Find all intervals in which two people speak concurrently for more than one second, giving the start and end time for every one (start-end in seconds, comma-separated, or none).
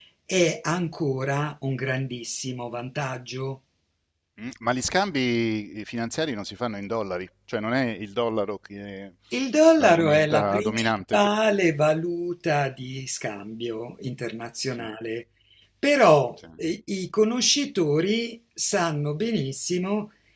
9.8-11.2